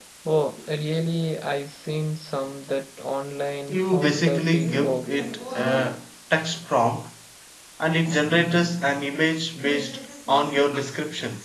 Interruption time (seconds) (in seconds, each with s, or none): 3.7 s